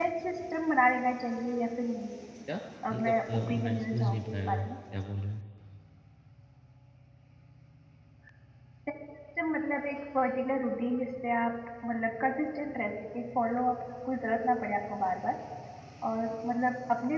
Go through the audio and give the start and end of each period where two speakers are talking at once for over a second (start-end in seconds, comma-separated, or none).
2.9-4.7